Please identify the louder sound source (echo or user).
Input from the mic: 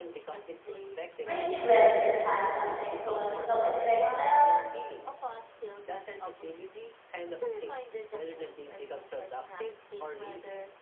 user